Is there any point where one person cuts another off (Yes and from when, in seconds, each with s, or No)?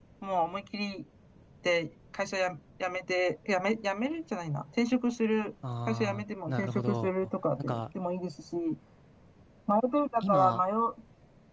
Yes, from 5.9 s